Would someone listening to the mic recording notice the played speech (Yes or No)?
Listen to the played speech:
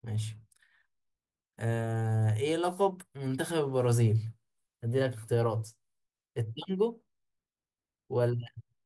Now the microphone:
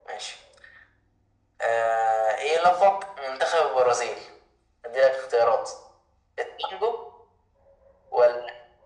Yes